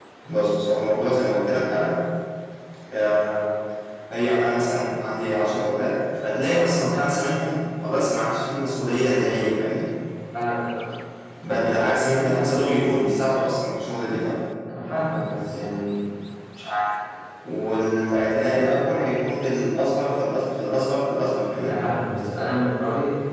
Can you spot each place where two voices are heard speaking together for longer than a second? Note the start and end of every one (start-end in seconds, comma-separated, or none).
none